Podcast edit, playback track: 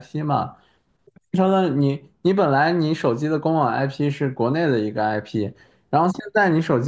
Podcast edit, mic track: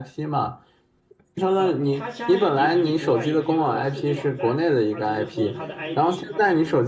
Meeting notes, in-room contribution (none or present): present